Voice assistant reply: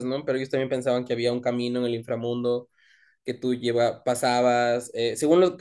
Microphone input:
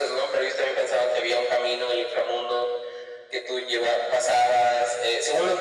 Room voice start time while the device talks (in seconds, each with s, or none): none